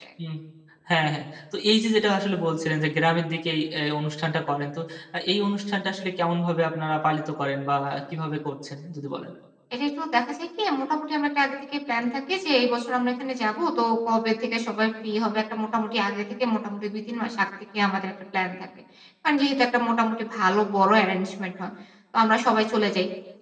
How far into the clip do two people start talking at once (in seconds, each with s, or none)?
none